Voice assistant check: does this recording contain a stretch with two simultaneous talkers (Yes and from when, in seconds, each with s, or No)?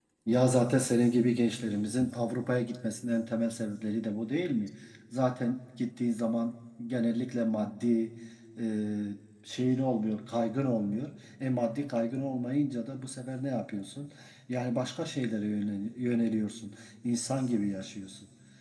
No